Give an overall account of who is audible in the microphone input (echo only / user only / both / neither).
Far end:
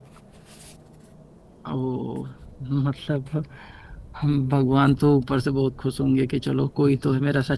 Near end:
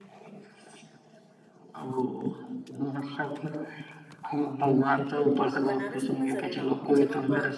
both